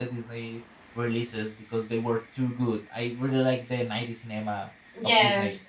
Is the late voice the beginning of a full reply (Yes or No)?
No